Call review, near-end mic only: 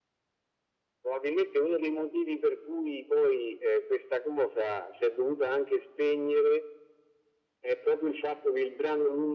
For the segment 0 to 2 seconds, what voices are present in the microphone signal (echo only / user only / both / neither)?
echo only